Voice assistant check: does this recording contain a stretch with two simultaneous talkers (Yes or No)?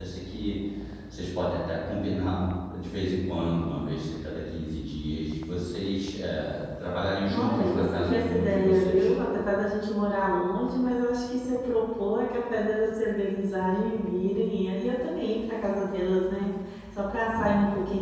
Yes